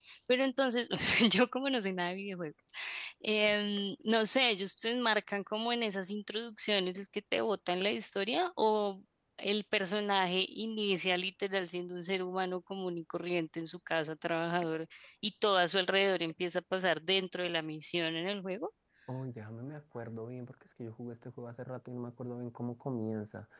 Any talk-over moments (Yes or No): No